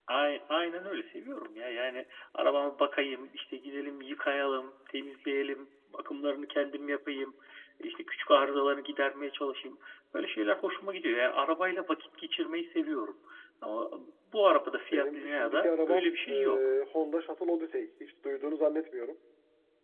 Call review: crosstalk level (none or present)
present